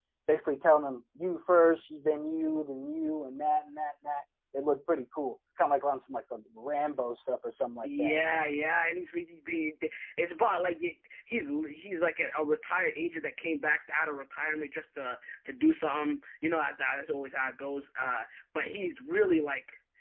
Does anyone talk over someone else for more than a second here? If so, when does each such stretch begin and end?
none

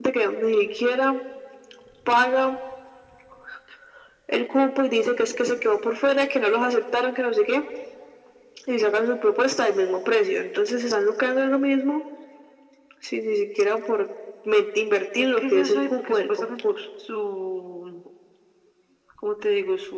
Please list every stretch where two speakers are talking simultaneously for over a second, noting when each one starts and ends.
15.4-16.6

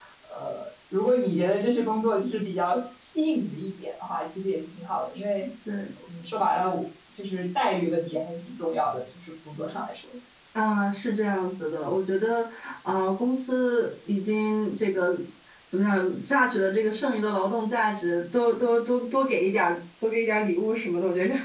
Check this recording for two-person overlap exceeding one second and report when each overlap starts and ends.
none

